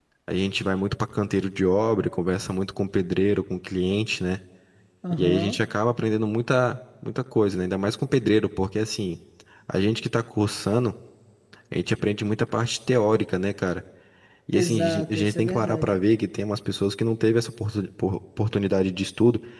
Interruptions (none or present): present